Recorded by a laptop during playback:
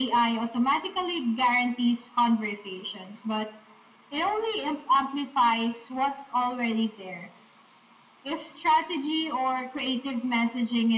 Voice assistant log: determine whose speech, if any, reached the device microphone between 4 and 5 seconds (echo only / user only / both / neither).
echo only